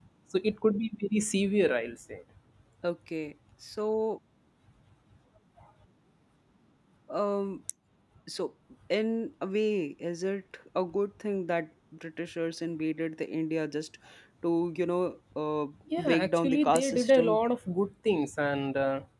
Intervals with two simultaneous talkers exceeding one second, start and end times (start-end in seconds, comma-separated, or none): 16.0-17.4